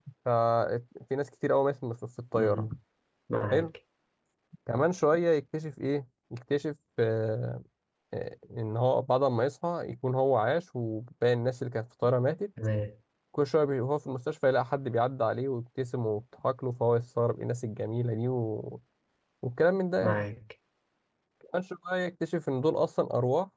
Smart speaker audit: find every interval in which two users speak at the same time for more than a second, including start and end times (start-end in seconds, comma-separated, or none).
none